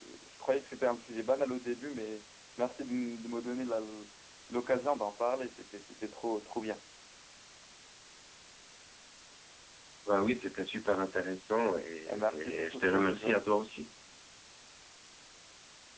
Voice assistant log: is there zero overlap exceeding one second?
No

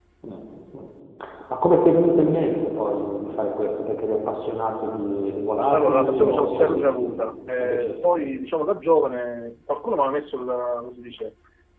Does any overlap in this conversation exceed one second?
Yes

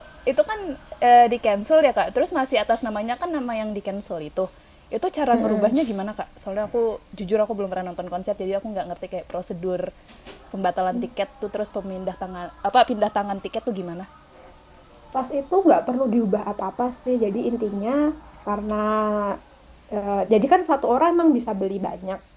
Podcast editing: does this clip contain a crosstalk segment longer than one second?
No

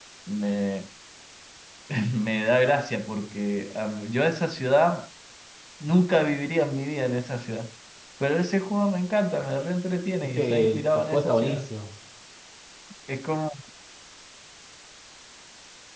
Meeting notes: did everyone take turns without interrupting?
No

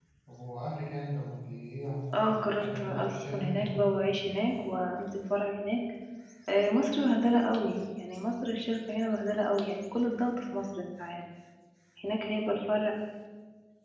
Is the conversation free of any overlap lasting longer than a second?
No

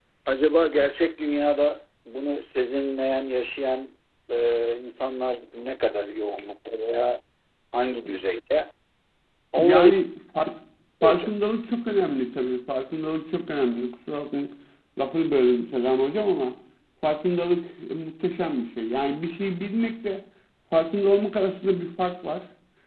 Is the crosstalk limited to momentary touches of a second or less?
Yes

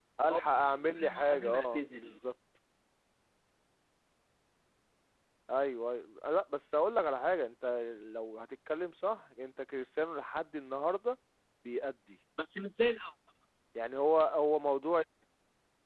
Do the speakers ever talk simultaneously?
Yes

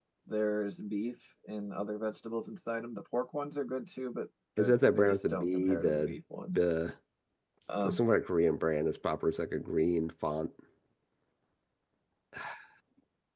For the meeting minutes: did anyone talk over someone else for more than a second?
Yes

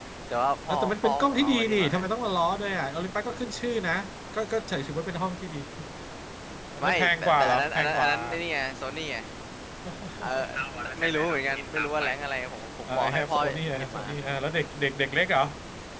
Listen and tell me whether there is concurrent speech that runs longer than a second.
Yes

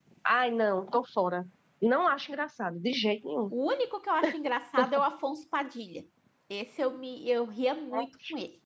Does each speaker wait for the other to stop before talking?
Yes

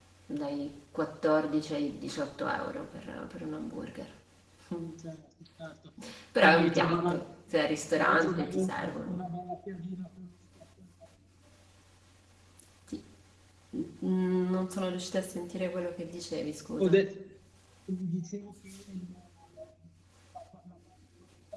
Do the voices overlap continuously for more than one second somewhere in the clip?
Yes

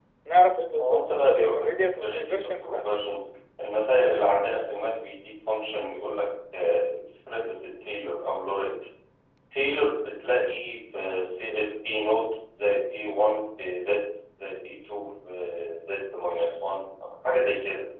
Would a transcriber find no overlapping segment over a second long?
No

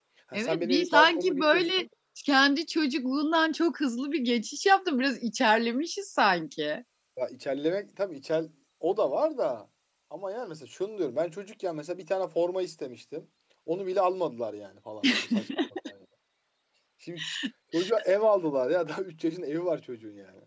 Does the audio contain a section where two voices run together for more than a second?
Yes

